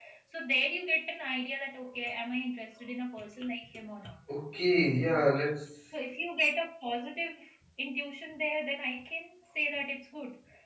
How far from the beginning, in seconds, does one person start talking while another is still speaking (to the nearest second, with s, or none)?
none